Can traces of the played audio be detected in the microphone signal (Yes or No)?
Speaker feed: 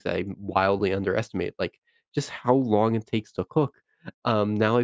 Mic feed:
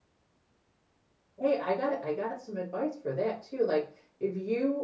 No